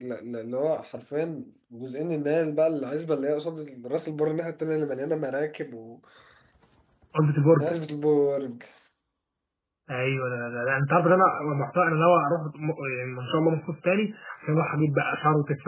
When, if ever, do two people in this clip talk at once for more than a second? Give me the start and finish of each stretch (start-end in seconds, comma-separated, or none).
none